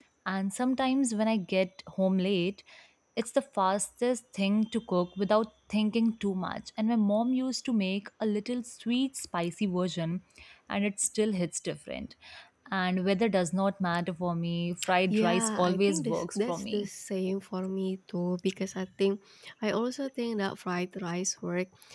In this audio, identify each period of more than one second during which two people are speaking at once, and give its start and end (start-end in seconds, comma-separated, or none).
15.1-16.9